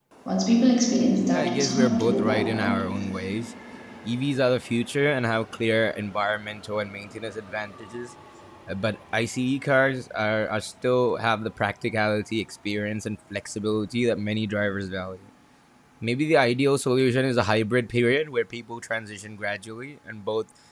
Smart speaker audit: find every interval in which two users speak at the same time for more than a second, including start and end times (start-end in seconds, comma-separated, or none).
1.3-2.7